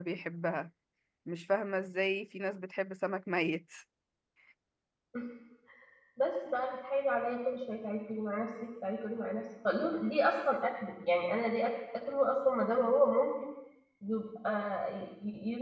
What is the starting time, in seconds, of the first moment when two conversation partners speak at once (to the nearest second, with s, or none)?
none